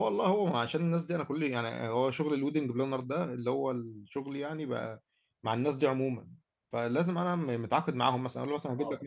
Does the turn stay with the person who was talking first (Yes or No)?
Yes